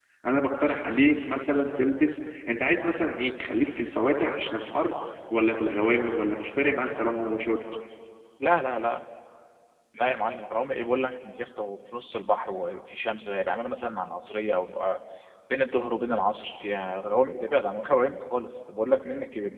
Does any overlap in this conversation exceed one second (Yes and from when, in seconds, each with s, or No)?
No